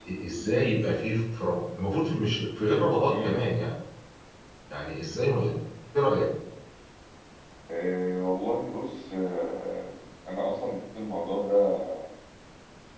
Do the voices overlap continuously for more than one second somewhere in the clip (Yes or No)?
No